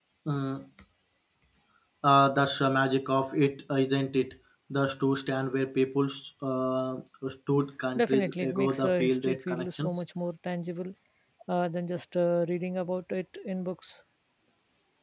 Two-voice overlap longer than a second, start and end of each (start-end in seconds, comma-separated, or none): 8.0-10.0